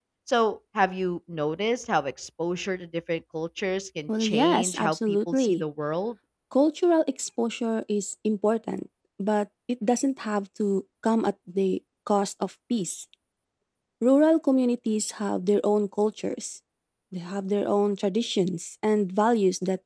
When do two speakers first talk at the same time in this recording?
4.1 s

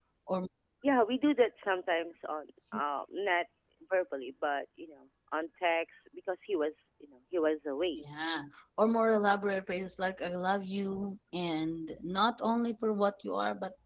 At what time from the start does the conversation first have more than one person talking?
none

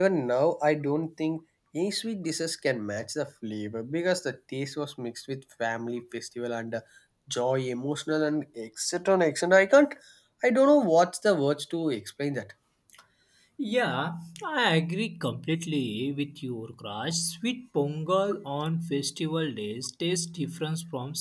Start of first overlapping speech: none

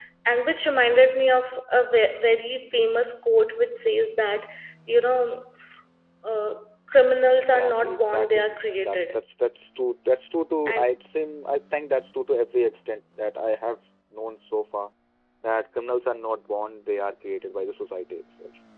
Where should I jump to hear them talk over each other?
7.5 s

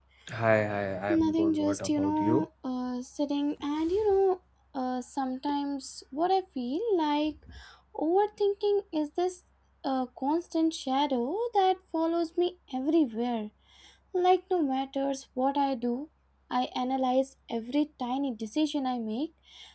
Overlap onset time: 1.1 s

